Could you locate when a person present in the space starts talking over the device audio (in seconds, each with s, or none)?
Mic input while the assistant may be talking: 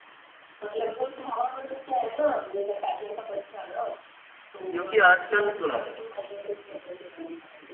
4.7 s